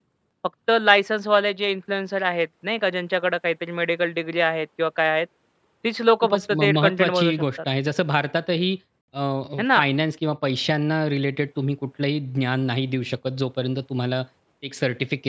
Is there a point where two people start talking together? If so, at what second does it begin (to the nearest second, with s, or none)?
6 s